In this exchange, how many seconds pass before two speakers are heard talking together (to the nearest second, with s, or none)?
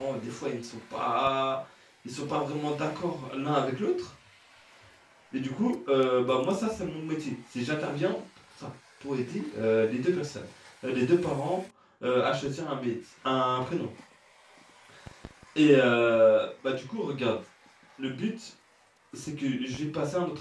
none